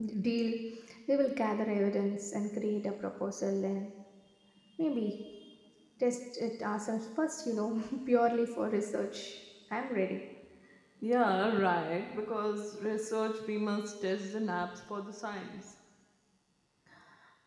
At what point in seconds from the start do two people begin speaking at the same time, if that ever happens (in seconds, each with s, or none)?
none